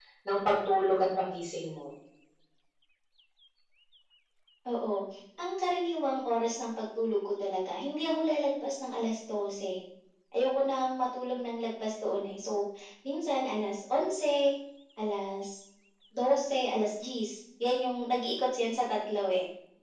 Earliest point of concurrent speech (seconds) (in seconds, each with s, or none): none